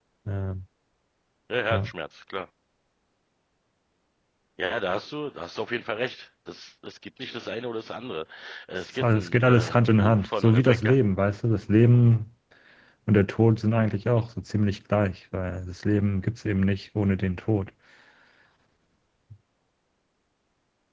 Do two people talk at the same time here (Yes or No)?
Yes